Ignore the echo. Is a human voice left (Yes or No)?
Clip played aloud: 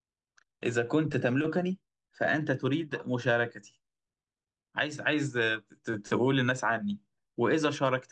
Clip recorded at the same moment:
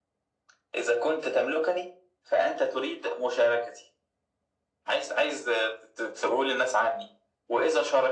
No